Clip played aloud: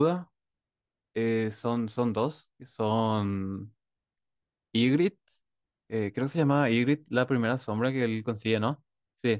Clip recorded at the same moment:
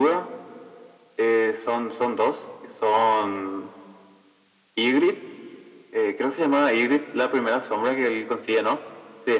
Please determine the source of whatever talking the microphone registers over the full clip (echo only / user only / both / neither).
echo only